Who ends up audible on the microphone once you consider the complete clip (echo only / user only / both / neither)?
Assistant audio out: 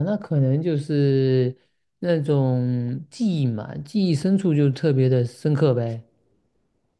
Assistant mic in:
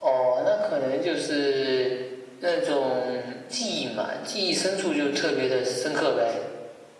echo only